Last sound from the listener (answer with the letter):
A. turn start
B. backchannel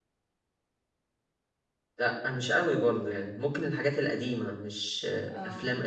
B